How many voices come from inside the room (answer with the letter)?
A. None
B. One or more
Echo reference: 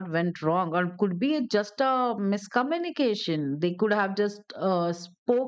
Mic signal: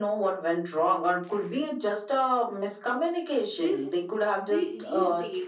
B